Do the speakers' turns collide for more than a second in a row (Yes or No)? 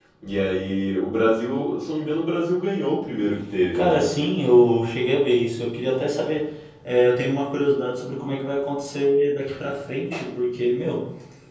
No